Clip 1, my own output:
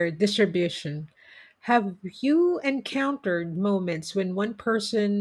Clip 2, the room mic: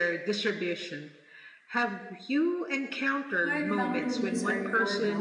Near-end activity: present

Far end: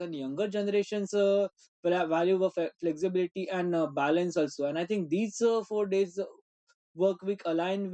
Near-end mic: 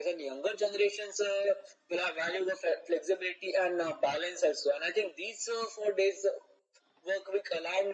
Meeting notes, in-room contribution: none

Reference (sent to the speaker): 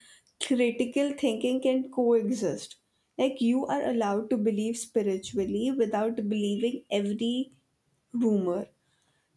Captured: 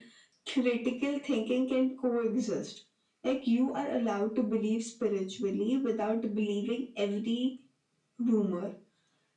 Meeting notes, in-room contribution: none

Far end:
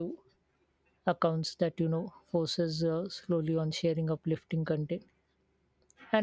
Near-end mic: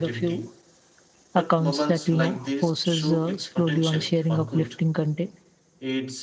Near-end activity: present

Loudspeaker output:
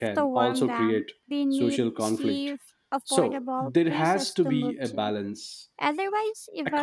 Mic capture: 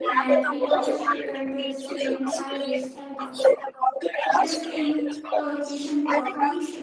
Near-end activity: present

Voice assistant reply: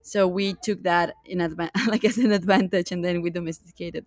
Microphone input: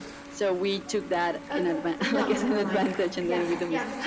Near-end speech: present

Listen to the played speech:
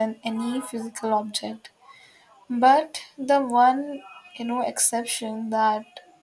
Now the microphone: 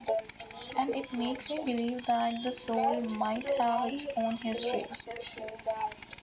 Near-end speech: present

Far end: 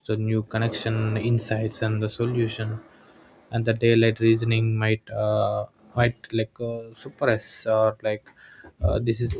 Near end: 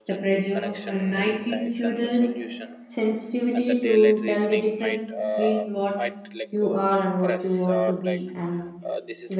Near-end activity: present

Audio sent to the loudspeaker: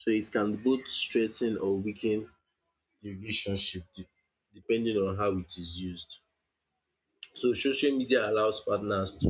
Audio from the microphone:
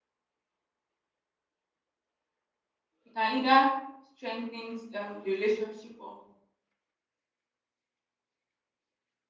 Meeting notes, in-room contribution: present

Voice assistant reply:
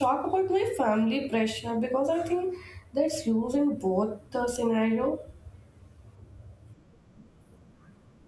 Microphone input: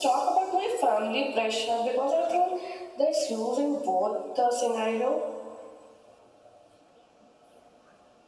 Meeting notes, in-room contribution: none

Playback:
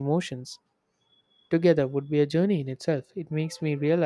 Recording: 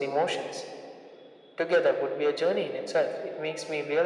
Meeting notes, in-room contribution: none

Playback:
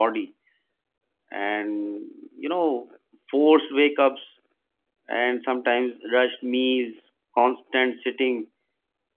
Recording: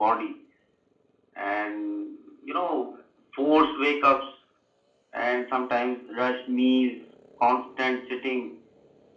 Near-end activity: none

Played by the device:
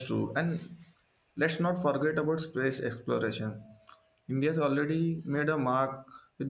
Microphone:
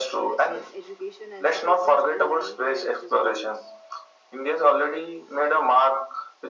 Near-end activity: present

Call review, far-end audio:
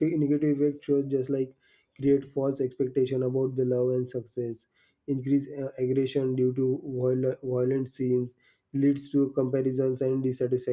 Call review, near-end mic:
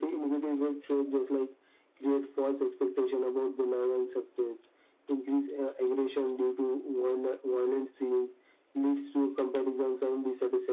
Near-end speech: none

